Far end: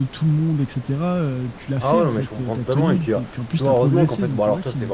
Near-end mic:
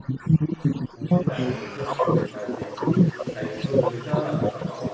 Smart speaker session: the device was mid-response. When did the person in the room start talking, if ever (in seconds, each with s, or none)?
0.9 s